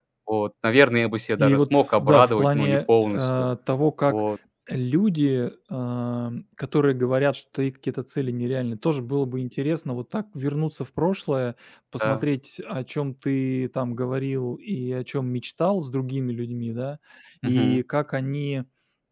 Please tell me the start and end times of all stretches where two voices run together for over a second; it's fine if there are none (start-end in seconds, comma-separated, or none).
1.4-3.3